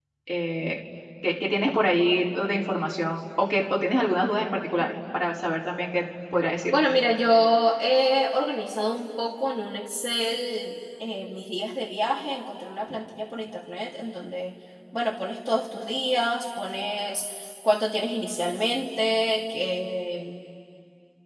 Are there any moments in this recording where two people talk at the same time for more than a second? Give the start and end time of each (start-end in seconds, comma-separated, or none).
none